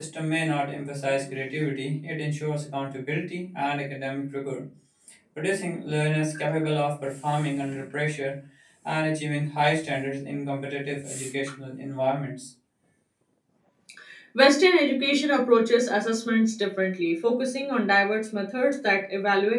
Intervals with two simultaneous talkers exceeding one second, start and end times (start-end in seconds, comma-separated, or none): none